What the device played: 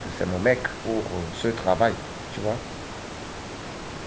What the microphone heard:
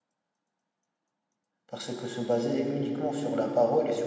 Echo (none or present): none